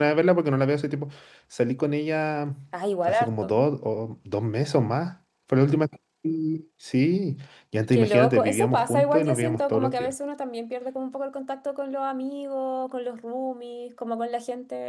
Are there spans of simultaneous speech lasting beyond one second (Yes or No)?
Yes